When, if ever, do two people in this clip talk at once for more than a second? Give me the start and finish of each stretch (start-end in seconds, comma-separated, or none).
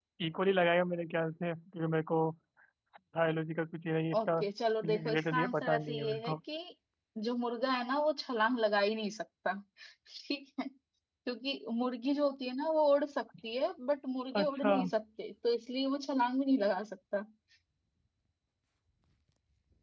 4.8-6.2